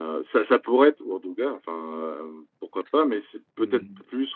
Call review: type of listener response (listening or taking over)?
listening